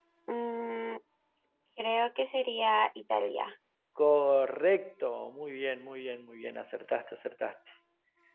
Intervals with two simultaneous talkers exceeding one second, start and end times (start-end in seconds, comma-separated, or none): none